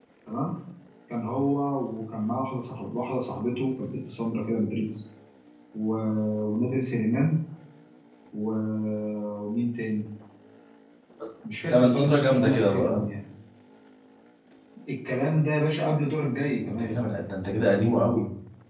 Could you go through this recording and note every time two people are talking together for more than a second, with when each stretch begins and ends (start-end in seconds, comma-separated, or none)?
11.7-13.0